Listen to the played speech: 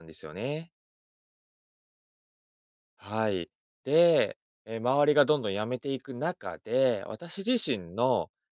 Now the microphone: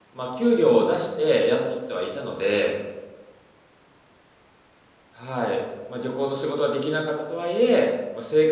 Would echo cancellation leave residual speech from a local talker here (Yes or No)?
Yes